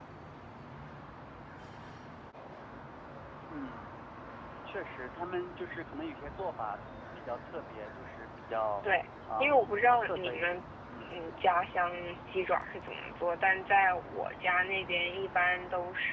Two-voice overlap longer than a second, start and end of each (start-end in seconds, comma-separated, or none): 9.4-10.6